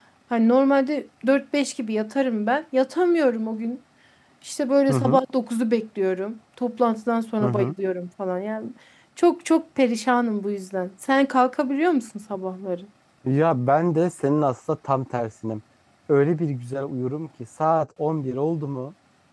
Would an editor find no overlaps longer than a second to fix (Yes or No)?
Yes